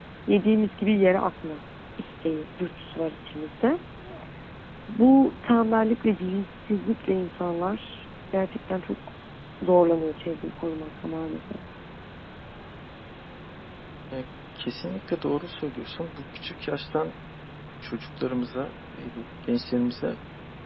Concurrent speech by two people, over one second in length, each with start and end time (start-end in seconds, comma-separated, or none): none